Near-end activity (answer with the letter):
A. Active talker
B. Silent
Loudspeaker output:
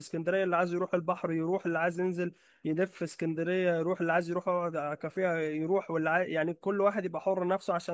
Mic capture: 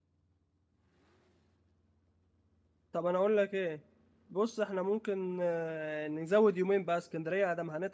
A